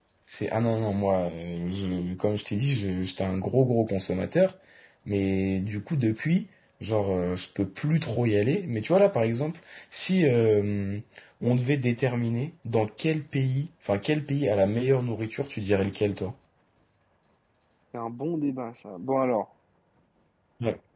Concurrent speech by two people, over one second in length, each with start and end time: none

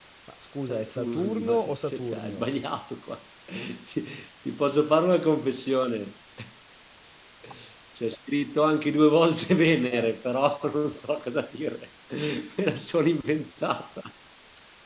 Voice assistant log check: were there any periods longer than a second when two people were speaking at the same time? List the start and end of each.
0.7-2.5

